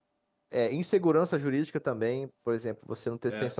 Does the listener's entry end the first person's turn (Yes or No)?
No